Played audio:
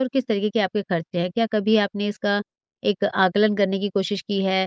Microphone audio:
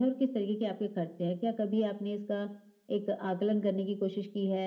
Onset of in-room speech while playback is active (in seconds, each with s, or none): none